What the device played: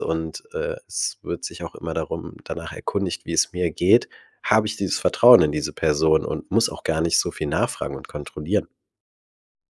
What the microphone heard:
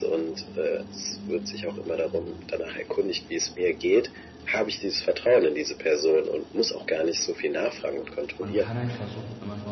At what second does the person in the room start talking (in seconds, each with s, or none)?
8.4 s